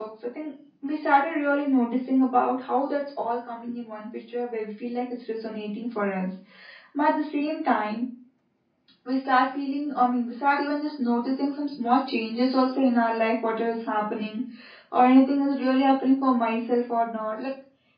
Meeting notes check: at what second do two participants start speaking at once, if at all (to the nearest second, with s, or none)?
none